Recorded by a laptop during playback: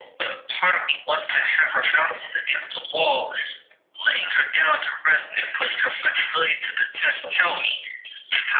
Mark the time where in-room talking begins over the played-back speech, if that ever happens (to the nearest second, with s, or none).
none